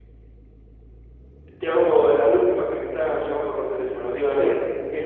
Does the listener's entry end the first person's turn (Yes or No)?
No